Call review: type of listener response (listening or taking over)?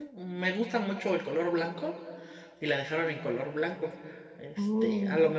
listening